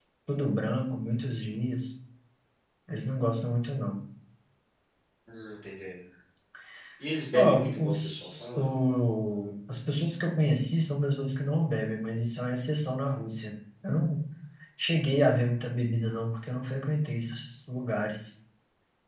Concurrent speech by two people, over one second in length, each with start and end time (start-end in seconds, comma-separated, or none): 7.3-8.6